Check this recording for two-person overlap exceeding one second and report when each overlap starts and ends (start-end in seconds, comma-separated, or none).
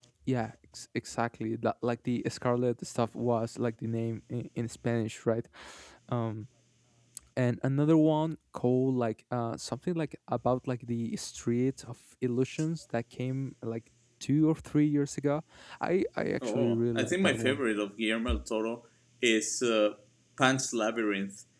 16.4-17.6